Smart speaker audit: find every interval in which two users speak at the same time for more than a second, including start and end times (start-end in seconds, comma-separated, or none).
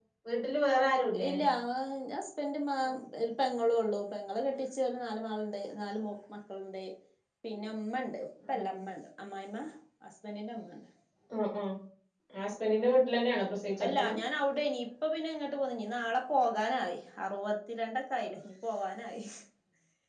none